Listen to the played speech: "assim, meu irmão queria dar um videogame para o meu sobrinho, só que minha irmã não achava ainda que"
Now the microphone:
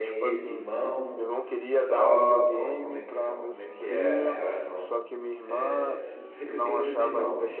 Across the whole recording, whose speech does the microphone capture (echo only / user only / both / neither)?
both